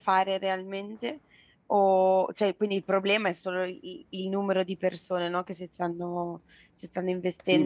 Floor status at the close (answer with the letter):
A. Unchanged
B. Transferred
B